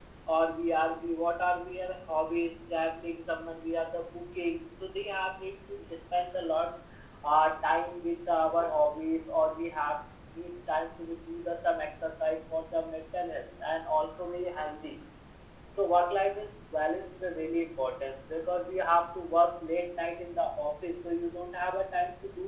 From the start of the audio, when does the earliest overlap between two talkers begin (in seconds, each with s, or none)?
none